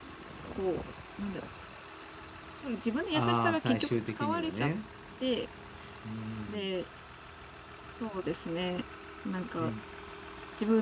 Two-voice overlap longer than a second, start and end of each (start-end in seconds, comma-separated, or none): 3.1-4.7